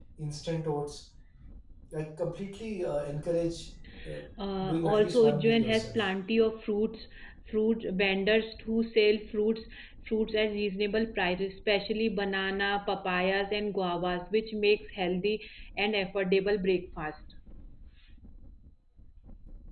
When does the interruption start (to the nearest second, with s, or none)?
5 s